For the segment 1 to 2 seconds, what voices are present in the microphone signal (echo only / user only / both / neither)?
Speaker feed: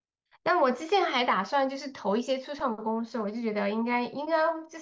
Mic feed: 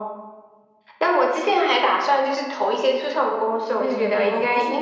echo only